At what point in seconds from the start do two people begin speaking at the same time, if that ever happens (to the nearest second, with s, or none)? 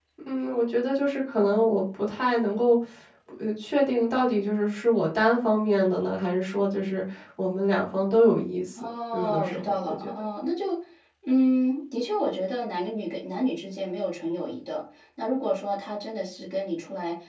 9 s